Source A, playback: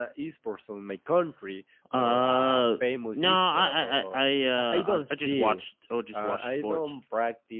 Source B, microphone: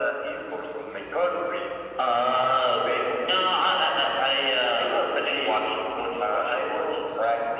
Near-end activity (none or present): none